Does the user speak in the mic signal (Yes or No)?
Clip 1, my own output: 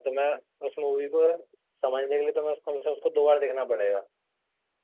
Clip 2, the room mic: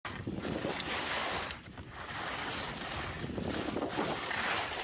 No